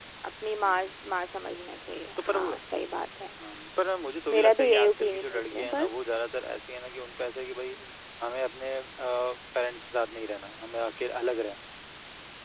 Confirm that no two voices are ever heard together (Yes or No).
No